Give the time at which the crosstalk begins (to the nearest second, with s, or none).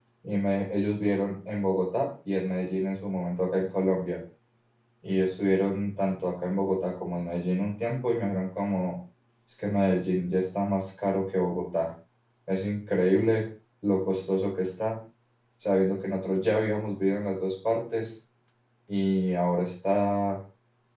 none